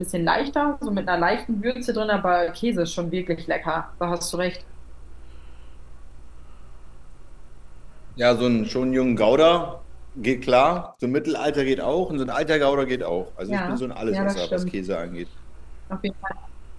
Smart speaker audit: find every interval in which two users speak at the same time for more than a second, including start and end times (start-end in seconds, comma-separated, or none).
13.5-14.8